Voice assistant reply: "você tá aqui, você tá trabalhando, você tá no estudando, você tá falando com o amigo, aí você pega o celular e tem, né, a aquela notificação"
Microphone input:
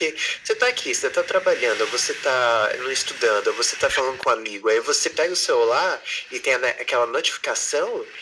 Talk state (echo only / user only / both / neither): echo only